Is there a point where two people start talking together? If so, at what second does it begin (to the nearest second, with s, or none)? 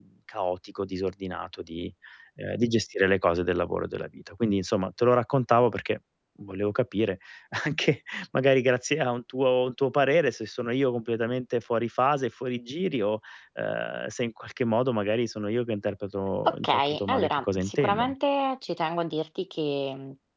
16 s